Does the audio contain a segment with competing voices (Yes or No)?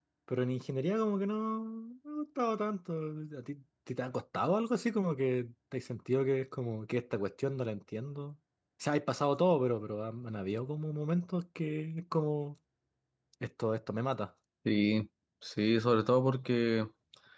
No